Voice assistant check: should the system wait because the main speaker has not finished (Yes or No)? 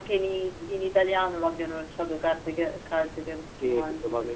No